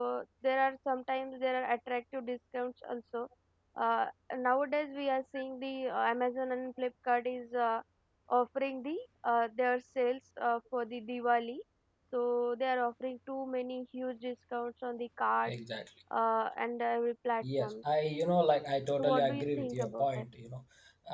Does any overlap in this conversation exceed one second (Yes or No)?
Yes